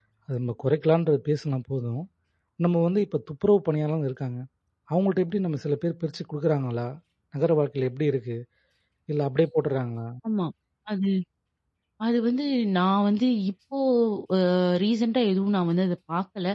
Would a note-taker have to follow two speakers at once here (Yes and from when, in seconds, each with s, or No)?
No